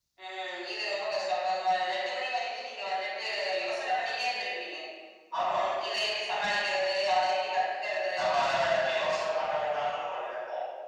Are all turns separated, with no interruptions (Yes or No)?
No